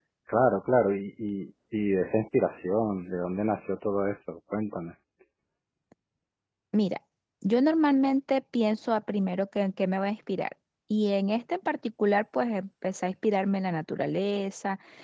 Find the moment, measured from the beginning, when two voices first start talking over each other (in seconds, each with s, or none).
none